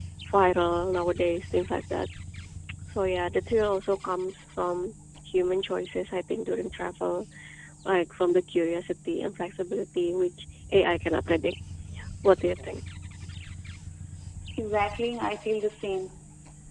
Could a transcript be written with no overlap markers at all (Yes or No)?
Yes